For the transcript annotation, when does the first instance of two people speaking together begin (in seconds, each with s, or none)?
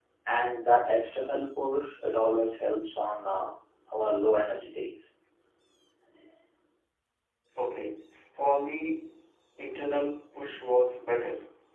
none